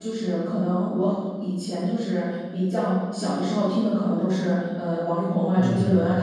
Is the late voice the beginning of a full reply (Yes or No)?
No